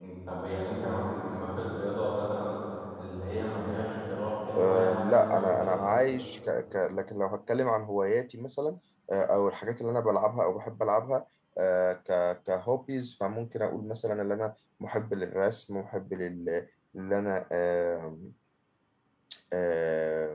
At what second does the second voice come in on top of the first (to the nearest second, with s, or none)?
4 s